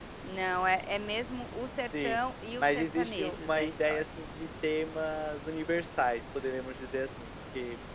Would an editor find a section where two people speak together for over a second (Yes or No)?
Yes